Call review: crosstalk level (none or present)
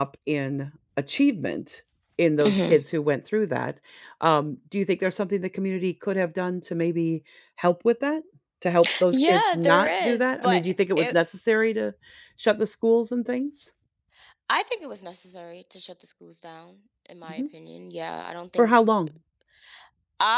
present